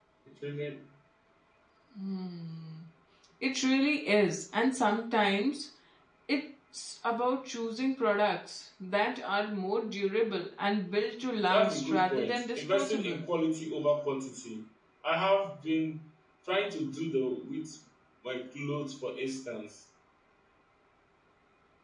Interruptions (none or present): present